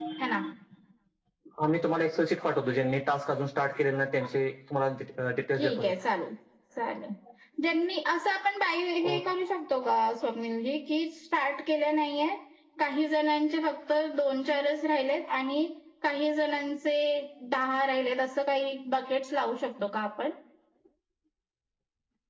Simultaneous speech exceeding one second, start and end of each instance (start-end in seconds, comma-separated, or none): none